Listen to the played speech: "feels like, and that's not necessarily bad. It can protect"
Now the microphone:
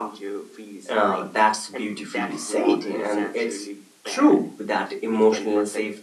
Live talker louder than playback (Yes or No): Yes